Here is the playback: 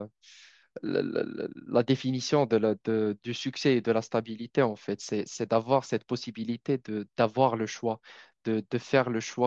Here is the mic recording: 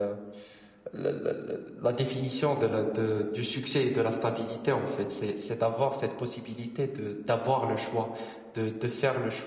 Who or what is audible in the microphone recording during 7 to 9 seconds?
echo only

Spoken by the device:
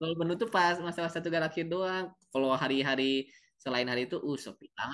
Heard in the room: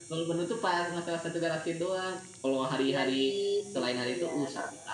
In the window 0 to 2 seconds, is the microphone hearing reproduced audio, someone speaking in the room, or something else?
echo only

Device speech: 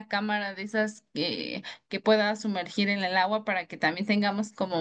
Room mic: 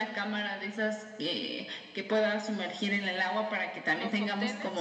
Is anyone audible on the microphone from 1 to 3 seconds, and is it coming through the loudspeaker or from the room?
echo only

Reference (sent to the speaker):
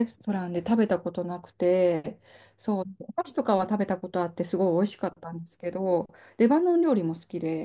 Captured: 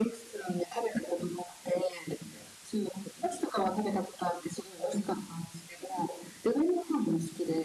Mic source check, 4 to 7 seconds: echo only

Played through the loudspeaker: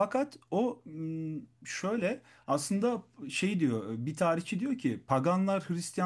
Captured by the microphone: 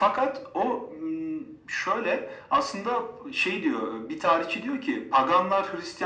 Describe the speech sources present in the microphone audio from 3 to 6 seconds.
echo only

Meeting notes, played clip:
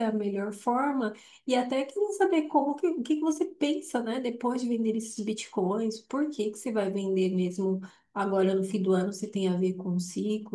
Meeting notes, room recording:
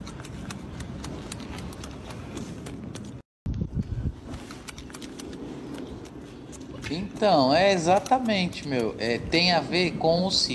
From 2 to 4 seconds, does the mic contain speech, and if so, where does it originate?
neither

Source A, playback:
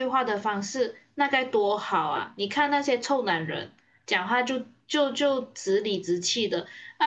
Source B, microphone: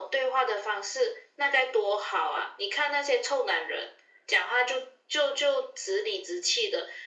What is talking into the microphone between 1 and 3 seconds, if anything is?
echo only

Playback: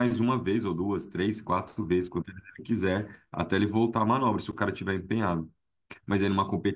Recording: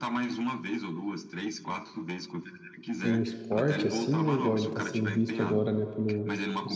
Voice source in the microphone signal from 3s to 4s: both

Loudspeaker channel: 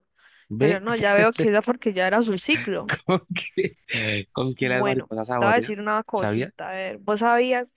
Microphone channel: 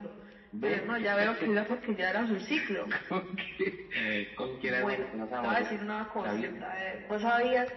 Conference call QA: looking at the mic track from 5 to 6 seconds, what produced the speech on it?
echo only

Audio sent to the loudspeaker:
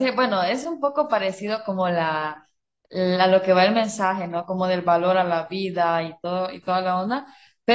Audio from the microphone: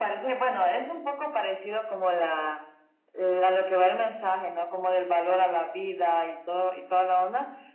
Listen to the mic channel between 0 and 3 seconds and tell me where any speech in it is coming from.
echo only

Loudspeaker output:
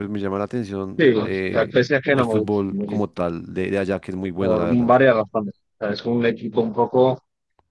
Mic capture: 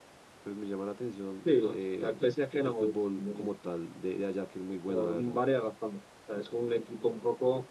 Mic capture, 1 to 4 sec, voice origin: echo only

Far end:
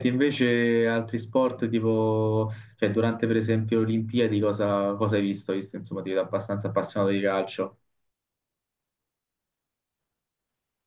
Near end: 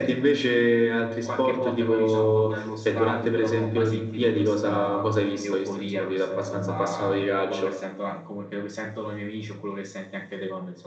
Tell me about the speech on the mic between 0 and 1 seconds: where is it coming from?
both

